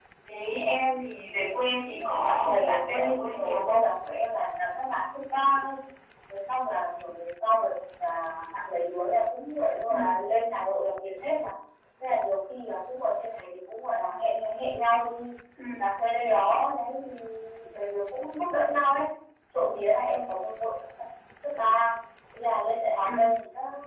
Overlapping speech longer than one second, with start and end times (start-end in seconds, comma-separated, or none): 2.0-3.8